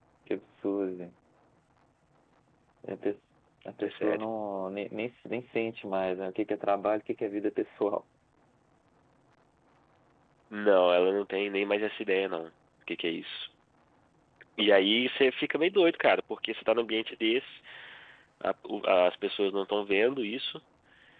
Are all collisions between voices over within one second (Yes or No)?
Yes